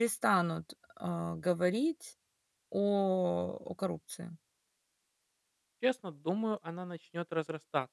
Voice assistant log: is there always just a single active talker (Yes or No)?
Yes